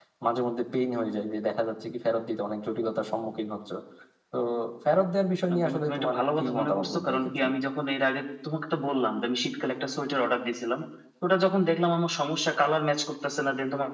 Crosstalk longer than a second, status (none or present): present